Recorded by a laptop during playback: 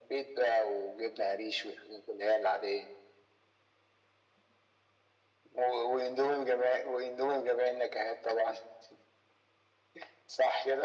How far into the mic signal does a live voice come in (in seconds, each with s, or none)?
none